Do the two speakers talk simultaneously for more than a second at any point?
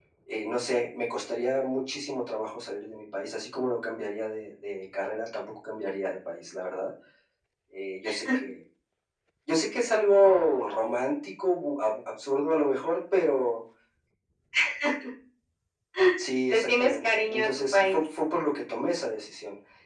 Yes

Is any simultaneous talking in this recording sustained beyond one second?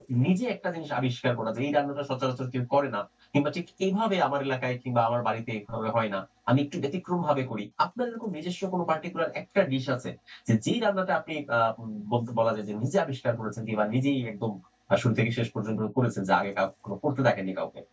No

